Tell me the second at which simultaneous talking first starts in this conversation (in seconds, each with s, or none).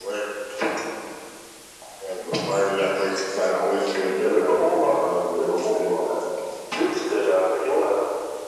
4.2 s